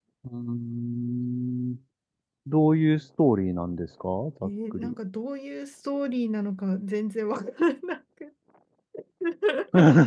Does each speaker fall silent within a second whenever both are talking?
Yes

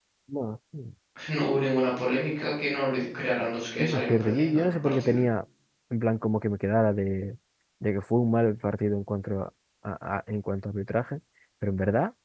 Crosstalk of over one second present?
Yes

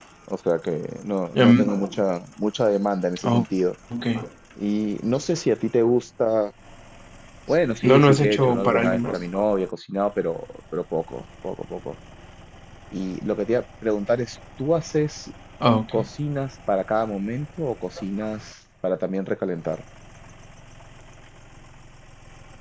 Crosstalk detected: Yes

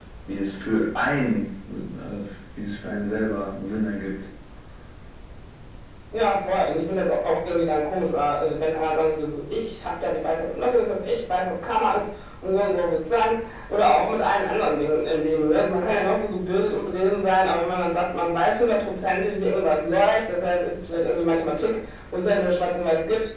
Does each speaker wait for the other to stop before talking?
Yes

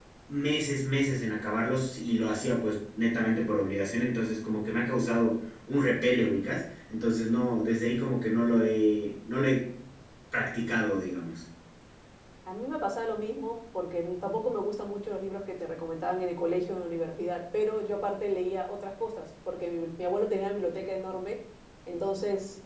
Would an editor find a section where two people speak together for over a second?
No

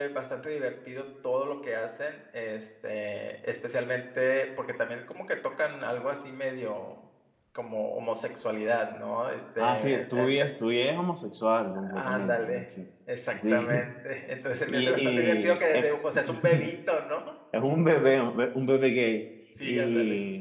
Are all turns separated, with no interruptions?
No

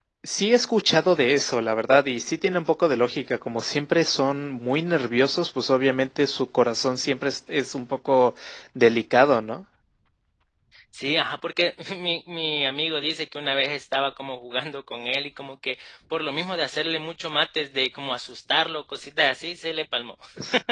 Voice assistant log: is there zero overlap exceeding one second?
Yes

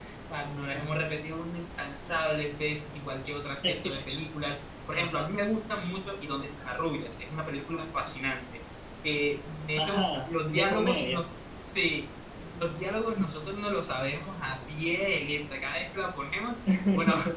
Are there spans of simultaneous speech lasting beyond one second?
Yes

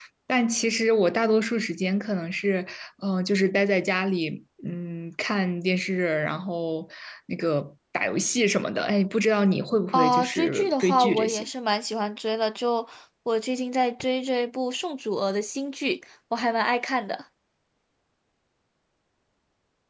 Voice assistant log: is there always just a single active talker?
No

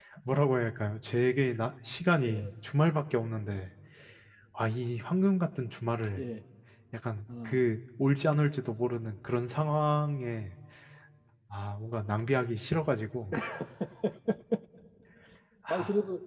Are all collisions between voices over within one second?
Yes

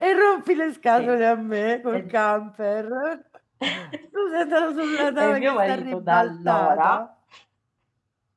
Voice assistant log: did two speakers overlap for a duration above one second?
Yes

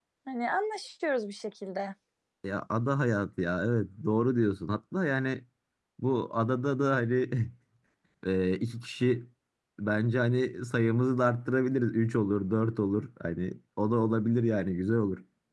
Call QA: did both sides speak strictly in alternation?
Yes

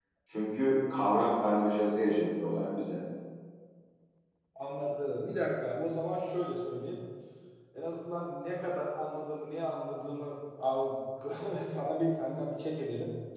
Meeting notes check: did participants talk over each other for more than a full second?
No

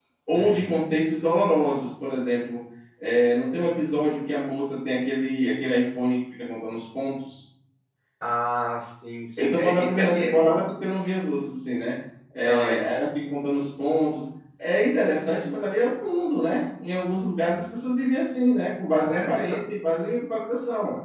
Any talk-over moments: Yes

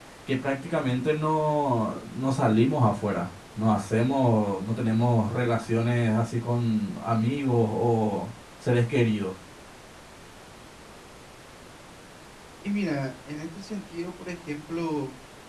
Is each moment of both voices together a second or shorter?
Yes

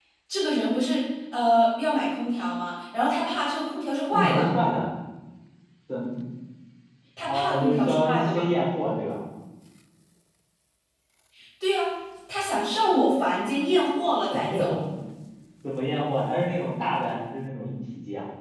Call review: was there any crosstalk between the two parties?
Yes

